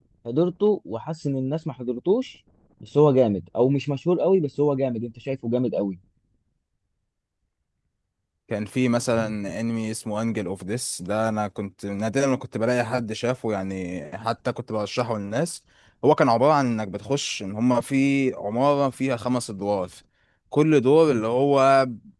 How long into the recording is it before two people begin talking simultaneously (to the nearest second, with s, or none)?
none